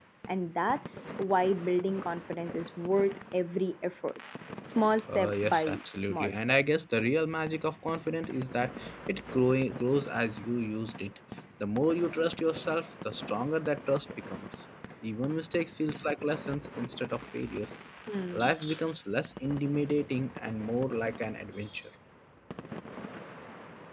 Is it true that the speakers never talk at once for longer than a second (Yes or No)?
No